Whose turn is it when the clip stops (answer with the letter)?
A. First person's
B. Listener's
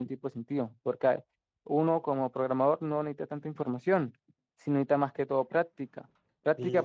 B